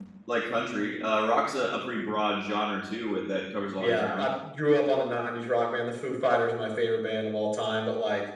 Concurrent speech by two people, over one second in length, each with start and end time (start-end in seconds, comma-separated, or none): none